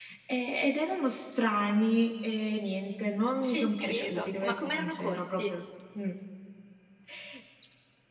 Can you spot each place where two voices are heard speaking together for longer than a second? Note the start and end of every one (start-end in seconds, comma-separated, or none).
3.4-5.5